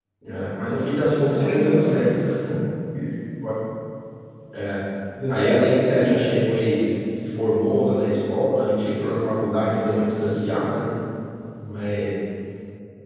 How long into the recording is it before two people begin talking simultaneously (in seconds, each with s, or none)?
0.9 s